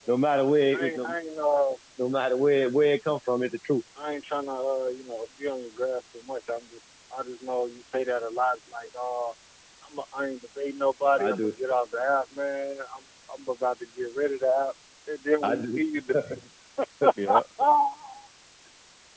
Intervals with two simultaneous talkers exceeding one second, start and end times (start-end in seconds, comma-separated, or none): none